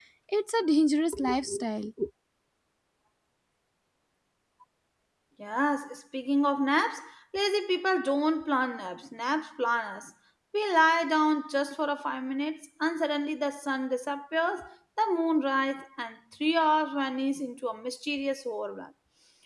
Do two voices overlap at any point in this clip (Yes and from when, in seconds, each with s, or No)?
No